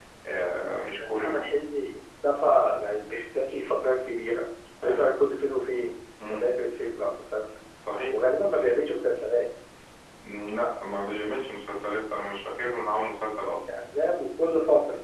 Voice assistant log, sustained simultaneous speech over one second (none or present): none